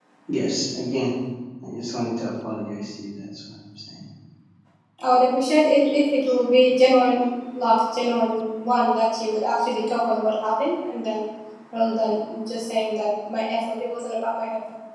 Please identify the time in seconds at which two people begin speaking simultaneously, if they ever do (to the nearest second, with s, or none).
none